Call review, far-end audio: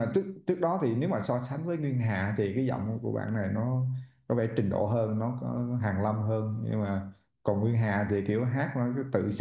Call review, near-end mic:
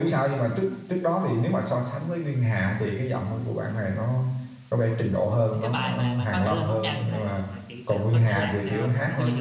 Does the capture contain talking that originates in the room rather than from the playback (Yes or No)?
Yes